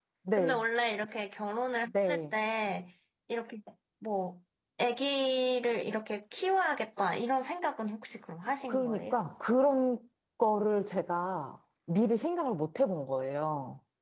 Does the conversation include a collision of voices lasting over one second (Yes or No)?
No